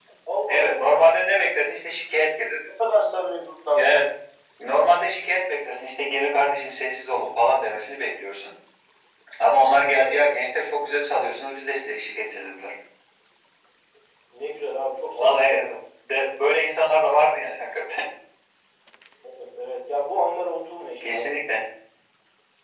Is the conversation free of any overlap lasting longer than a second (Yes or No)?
Yes